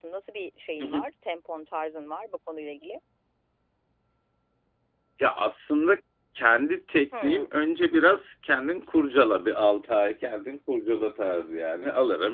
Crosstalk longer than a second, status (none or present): none